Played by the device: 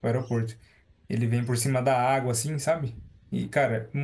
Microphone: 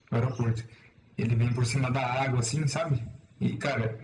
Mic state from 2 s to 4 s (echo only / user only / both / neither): echo only